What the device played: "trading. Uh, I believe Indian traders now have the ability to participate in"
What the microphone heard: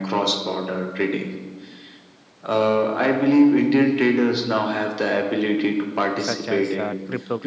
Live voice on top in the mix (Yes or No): No